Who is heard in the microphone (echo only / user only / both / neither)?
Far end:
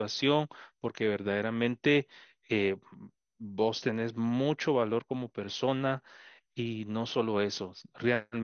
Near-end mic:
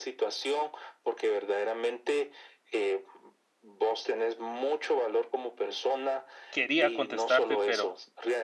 both